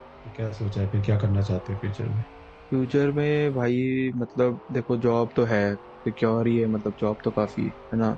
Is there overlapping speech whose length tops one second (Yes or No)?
No